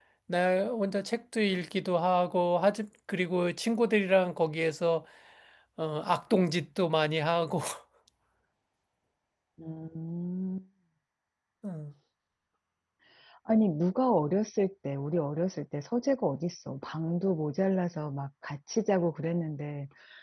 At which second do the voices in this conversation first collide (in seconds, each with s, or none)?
none